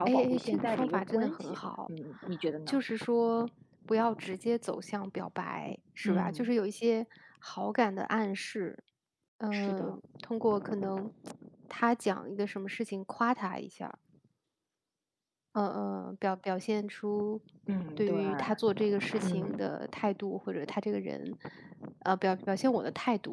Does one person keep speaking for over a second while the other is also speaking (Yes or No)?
Yes